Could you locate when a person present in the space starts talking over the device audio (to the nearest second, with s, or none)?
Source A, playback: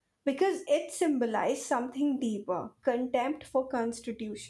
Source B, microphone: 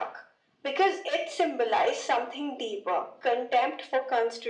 none